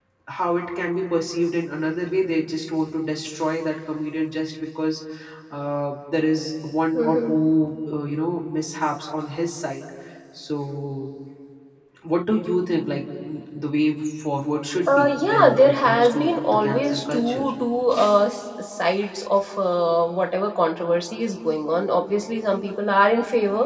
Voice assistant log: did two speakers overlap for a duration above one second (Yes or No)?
Yes